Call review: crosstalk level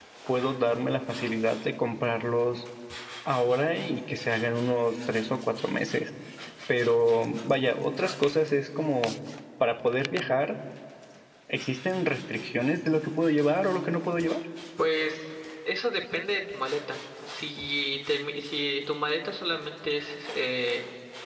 none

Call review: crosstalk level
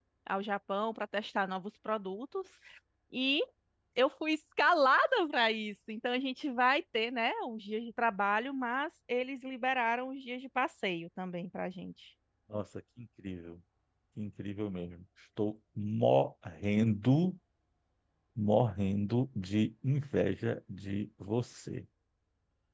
none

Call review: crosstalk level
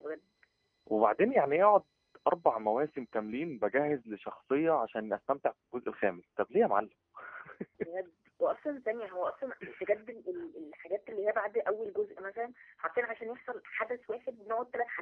none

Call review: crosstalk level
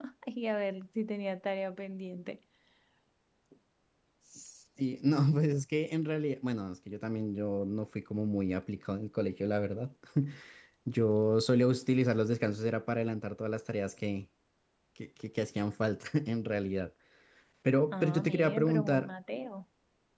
present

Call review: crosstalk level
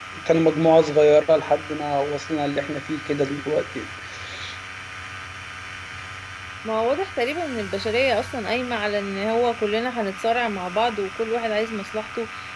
none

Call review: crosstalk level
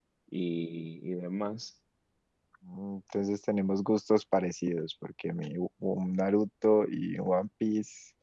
none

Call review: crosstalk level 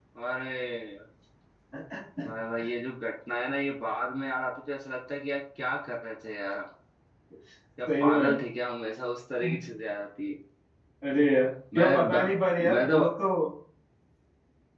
present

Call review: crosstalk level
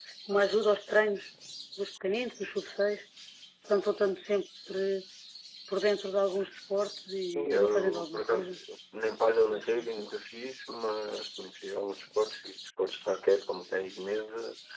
present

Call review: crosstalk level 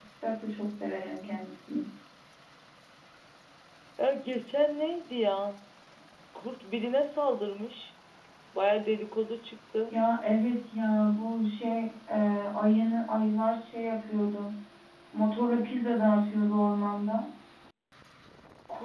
none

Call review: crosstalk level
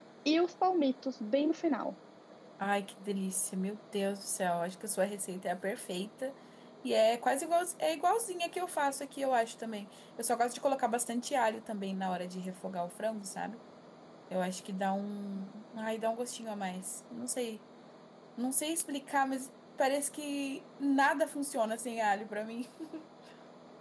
none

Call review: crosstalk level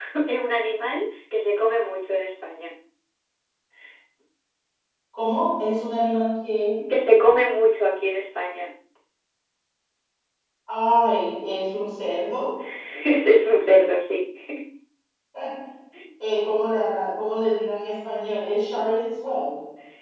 none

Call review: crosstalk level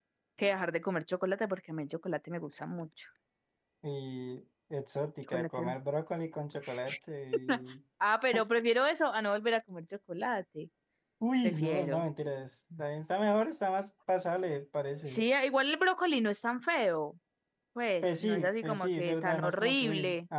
present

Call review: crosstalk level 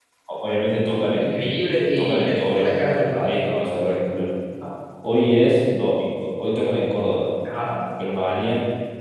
present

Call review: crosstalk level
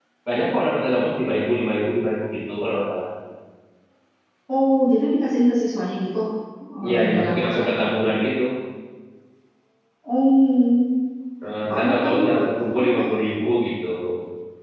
present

